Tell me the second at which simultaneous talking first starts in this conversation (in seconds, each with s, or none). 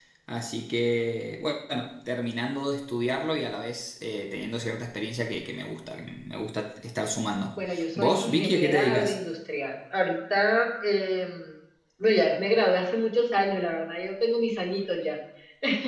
7.5 s